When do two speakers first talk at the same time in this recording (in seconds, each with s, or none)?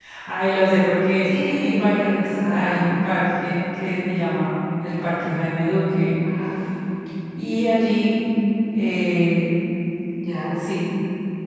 1.2 s